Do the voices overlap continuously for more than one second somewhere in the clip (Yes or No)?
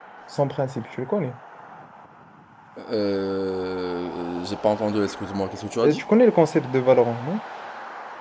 No